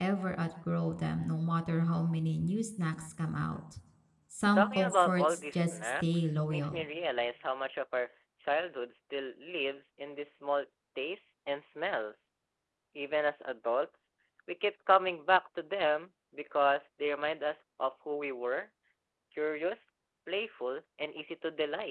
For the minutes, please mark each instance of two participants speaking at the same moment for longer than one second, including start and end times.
4.6-6.8

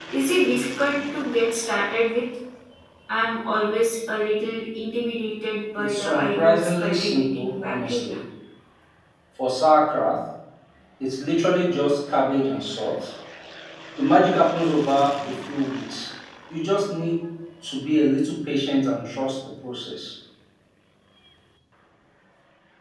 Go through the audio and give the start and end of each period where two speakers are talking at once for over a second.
5.8-8.2

